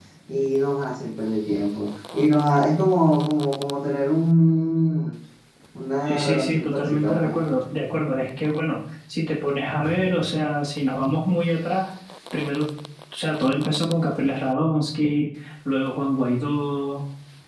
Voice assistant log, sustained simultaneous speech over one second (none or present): present